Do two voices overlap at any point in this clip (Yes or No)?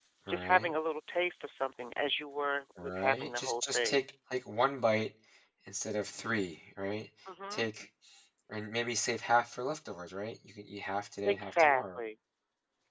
Yes